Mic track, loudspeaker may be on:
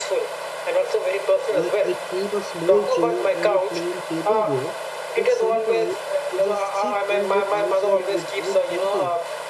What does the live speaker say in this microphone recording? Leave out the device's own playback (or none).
like I keep a small chair and a plain table there, but sometimes I just sit and look outside without thinking.